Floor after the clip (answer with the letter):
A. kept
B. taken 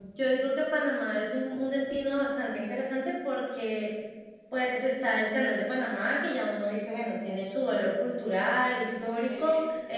A